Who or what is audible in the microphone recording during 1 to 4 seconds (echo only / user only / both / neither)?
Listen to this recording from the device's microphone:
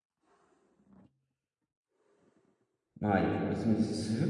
user only